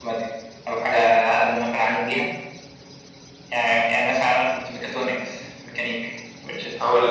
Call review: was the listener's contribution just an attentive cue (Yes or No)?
No